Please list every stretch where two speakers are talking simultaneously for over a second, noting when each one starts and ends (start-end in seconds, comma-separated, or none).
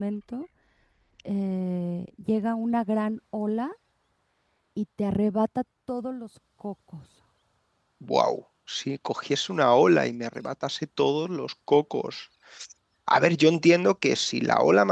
none